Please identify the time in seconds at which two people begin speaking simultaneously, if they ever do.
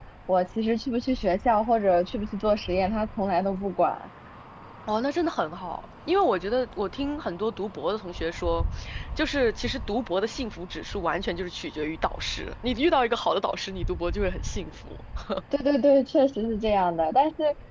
none

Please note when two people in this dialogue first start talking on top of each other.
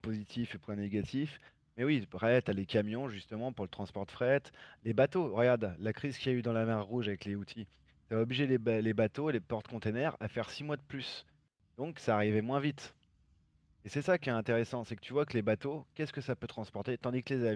none

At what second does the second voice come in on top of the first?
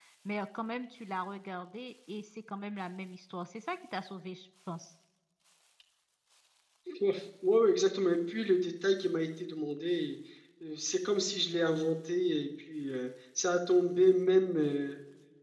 none

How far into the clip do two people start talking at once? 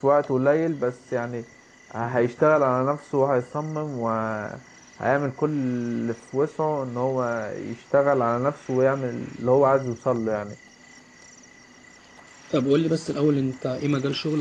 none

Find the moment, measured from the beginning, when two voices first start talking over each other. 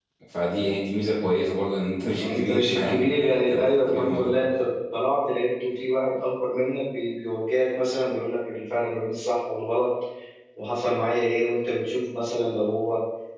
2.2 s

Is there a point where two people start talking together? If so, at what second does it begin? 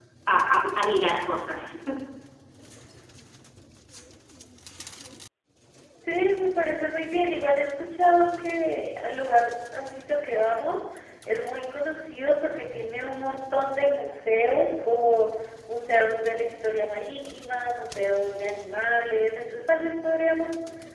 none

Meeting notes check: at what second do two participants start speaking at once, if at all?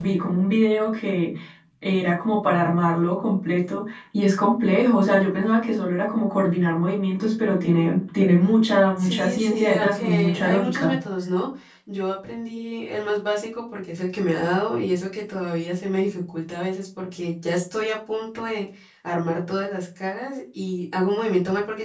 9.0 s

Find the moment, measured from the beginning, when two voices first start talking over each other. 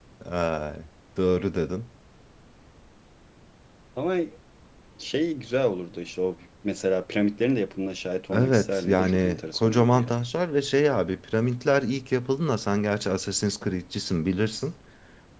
8.3 s

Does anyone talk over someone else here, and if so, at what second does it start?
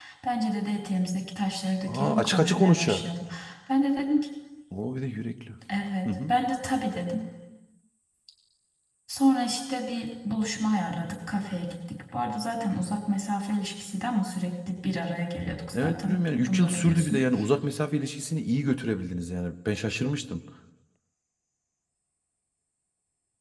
1.8 s

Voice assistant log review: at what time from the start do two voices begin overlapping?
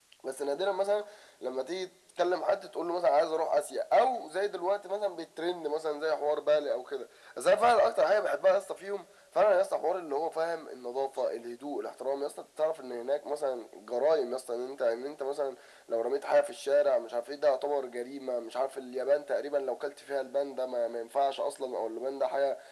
none

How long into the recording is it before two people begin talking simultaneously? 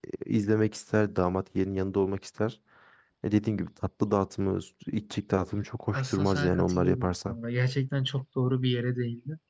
5.9 s

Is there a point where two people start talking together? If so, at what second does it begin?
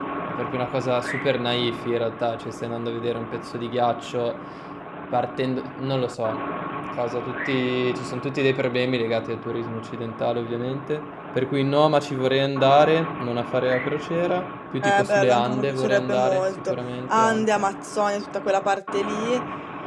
14.8 s

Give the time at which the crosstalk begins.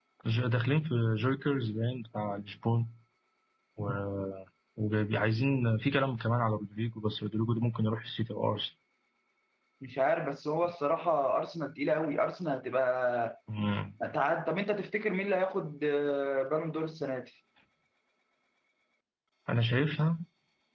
none

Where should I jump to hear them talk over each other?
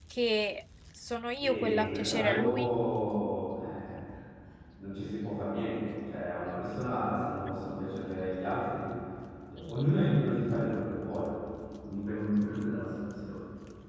1.4 s

